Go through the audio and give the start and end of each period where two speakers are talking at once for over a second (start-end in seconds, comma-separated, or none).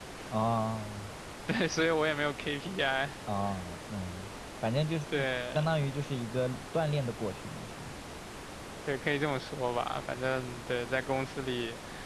none